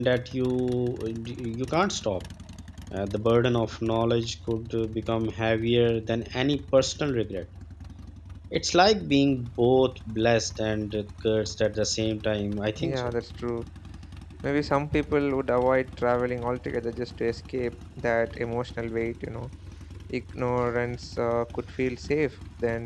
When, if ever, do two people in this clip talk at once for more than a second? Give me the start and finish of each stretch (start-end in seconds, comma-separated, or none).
none